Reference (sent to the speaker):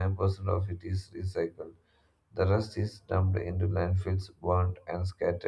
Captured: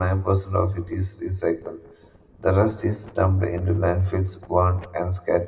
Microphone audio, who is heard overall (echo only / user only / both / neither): echo only